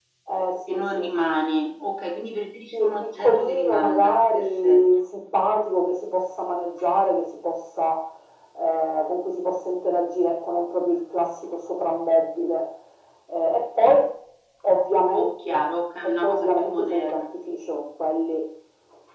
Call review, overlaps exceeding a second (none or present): present